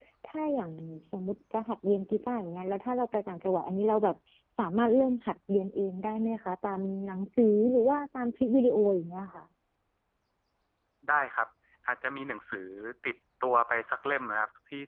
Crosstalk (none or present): none